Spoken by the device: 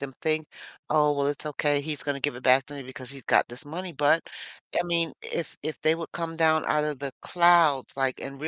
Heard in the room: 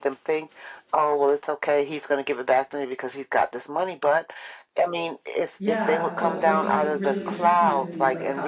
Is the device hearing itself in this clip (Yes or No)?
Yes